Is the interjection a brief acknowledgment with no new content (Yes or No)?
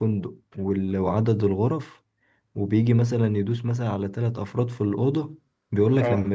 Yes